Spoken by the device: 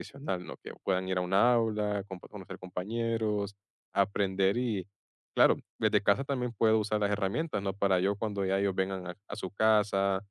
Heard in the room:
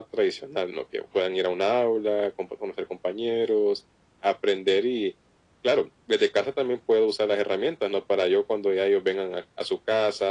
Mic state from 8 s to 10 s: echo only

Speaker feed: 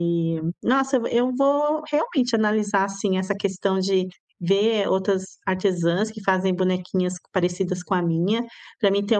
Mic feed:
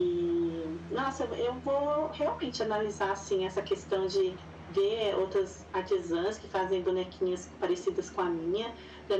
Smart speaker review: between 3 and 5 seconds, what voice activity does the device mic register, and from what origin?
echo only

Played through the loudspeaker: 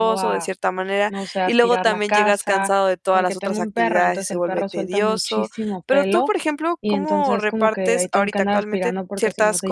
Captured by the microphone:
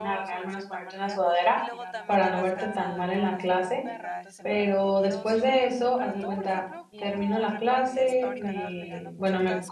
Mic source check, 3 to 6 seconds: both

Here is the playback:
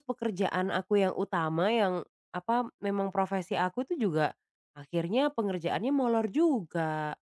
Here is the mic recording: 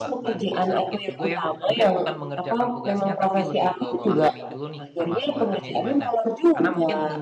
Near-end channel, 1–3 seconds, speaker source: both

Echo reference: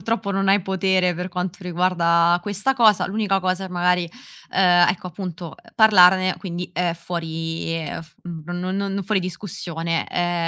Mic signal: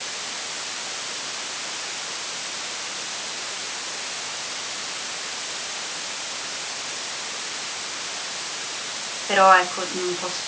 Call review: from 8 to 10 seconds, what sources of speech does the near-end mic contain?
user only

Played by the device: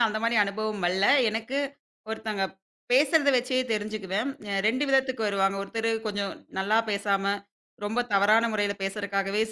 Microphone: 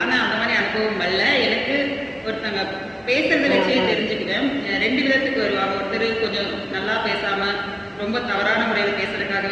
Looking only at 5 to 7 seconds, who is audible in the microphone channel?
echo only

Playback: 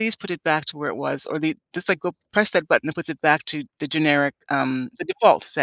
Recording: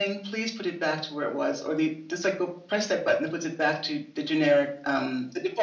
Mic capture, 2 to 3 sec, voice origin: echo only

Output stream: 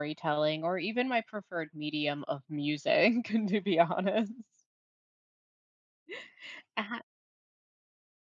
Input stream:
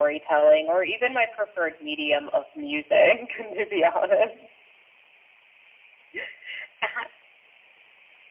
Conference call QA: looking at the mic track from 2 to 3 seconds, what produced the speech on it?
echo only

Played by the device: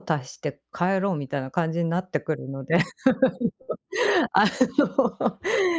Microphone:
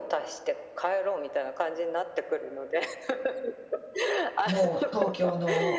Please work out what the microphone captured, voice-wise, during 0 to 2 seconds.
echo only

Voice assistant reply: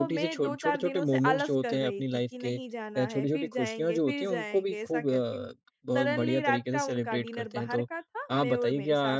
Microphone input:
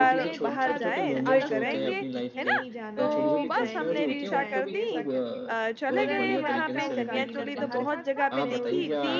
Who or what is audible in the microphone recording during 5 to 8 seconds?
both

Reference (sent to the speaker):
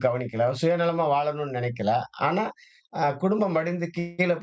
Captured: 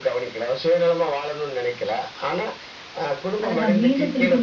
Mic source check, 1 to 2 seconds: echo only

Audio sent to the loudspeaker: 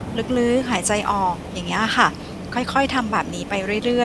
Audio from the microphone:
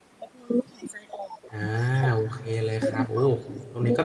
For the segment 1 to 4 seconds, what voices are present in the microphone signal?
both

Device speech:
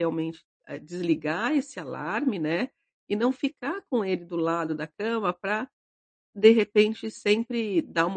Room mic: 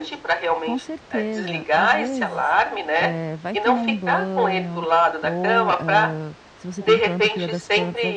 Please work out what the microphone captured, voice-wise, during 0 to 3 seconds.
both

